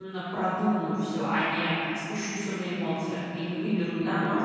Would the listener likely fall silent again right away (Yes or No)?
No